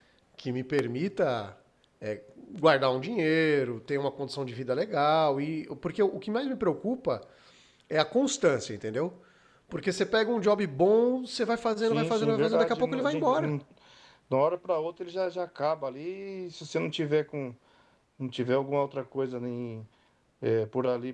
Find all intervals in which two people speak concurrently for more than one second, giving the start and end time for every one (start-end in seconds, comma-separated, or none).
11.8-13.5